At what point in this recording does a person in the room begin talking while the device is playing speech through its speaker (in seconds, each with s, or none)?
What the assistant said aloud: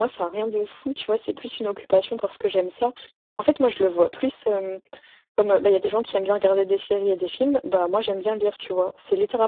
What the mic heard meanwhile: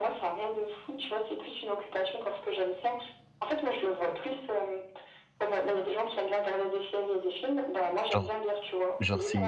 8.1 s